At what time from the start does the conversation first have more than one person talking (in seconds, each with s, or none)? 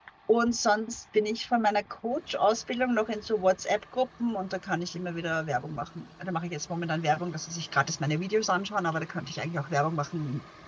none